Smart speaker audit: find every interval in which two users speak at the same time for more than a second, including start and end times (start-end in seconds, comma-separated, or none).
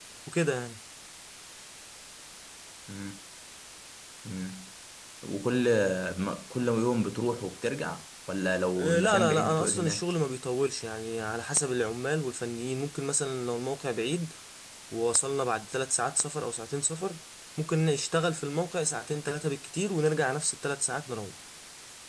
8.8-10.0